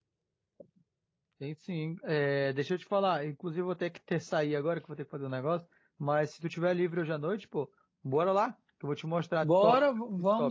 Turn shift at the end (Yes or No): Yes